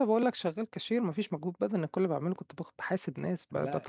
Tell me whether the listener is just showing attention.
Yes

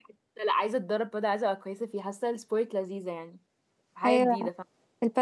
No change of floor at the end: No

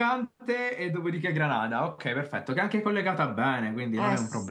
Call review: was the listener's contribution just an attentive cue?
No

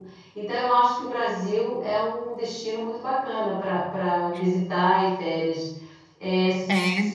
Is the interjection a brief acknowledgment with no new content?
Yes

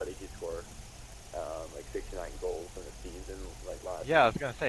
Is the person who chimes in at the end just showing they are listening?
No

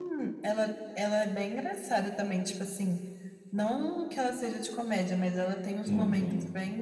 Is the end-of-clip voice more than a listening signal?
No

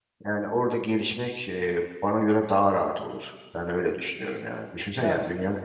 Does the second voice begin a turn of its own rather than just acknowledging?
No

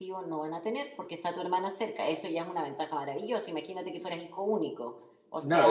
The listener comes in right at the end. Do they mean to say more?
Yes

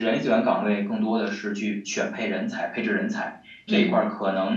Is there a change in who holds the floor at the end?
No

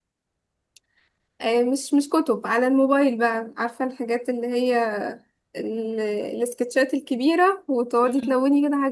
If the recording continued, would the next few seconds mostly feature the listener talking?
No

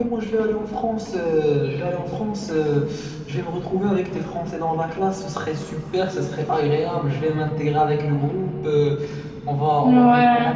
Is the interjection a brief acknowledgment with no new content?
Yes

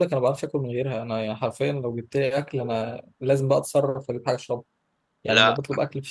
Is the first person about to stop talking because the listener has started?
No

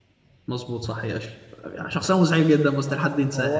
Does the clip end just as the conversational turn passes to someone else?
Yes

